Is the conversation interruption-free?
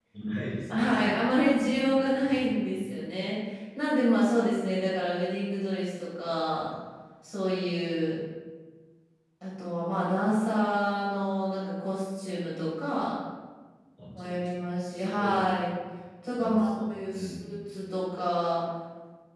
No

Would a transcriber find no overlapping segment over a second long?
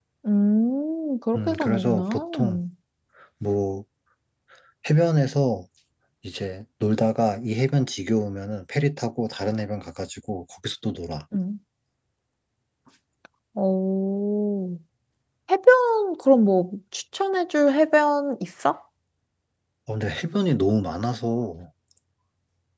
No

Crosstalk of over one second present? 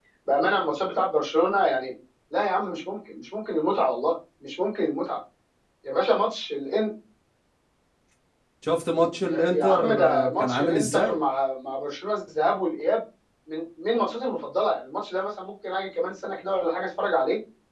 Yes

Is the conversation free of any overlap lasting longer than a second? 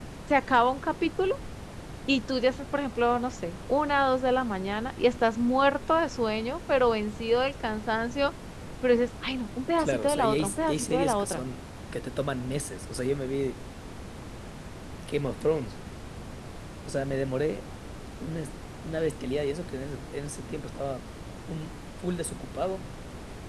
No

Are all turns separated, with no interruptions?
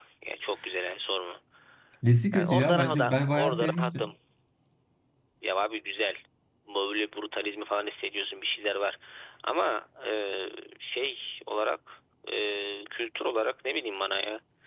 No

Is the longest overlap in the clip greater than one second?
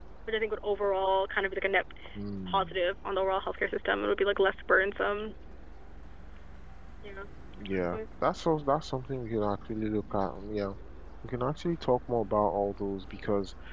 No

